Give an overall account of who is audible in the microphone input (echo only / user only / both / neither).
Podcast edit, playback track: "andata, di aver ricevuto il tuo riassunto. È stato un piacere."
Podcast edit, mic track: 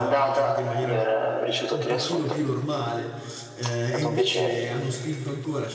both